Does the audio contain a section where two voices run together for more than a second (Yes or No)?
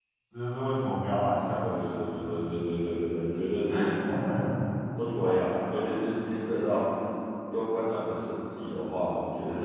Yes